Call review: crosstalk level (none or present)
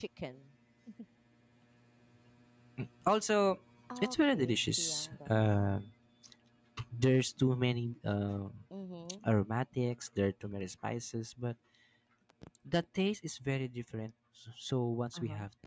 present